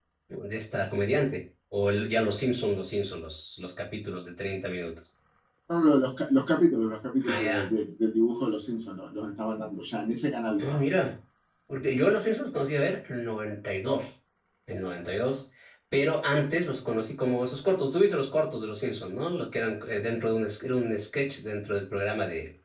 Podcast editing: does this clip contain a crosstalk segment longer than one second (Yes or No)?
No